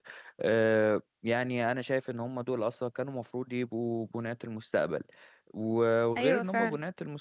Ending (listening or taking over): listening